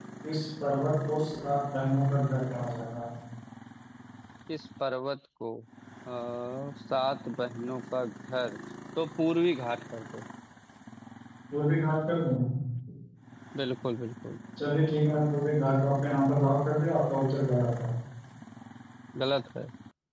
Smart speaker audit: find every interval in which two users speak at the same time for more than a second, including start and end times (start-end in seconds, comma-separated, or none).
none